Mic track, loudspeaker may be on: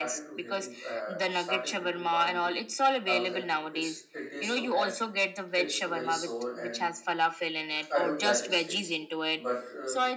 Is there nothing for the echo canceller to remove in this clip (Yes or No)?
No